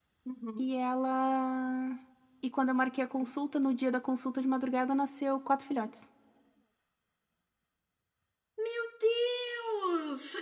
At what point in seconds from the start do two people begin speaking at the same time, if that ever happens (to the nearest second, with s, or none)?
none